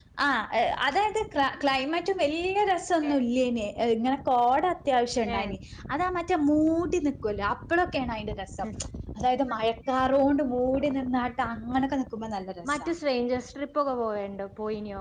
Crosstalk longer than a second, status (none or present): none